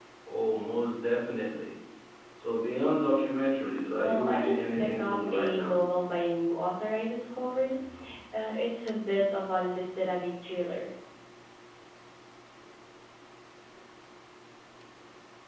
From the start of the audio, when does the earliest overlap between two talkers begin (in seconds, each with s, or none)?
4.0 s